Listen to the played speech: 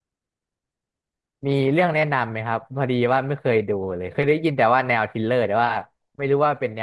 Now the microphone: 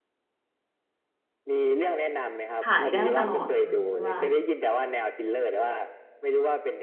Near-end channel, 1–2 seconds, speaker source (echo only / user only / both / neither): echo only